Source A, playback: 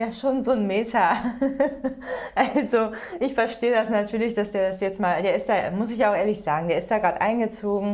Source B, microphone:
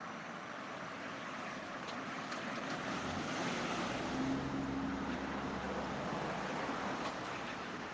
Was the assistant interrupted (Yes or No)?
No